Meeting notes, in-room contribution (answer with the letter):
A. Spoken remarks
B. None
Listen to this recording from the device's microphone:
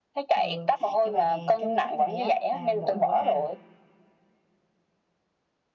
A